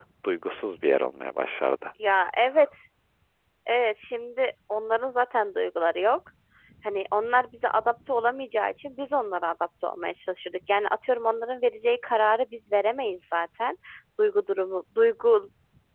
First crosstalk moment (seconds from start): none

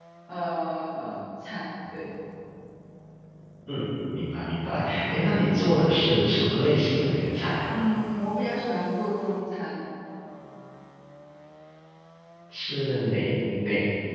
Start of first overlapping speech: none

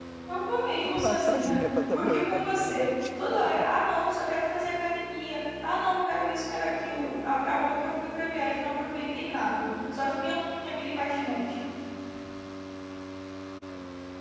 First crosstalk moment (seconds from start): 0.8 s

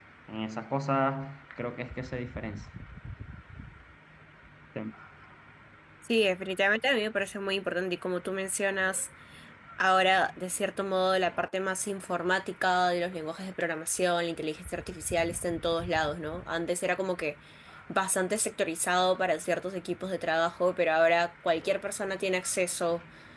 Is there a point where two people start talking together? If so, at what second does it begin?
none

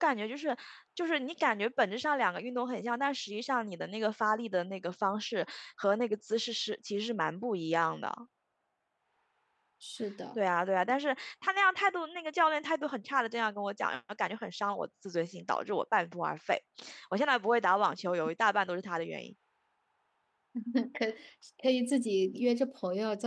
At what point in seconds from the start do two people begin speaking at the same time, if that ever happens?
none

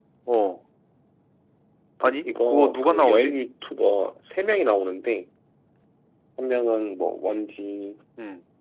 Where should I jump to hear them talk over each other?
2.0 s

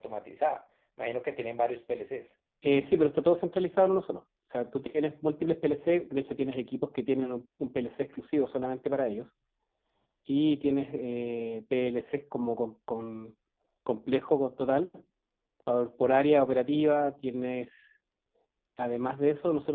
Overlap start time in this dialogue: none

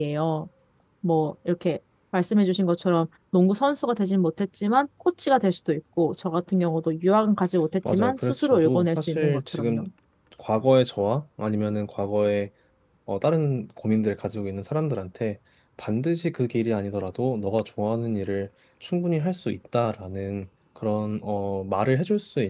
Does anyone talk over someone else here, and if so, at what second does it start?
7.8 s

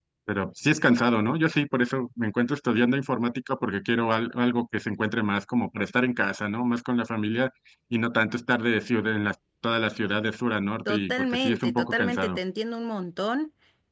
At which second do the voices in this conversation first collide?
10.8 s

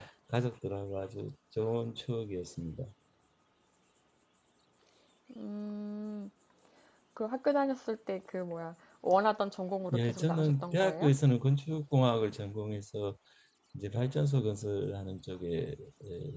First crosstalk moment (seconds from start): 9.9 s

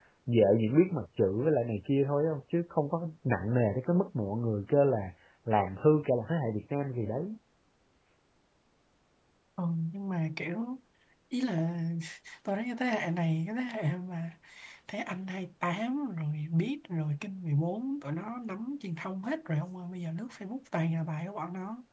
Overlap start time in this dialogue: none

